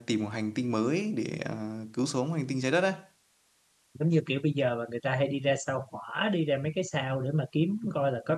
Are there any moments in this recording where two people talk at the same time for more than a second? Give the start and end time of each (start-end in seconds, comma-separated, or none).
none